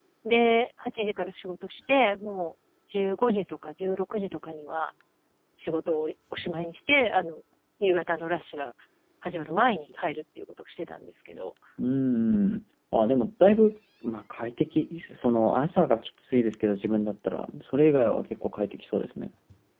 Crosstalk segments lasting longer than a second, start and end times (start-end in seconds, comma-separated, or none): none